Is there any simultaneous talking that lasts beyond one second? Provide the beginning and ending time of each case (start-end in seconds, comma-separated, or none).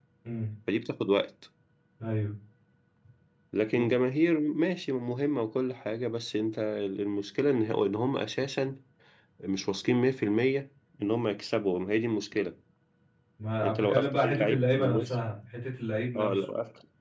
13.6-15.2